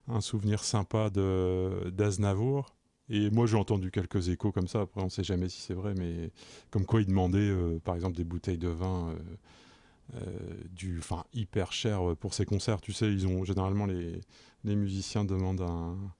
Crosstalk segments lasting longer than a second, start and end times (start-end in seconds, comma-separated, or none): none